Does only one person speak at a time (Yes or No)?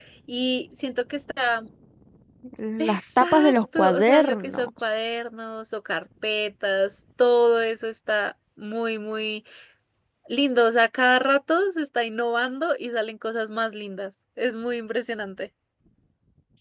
No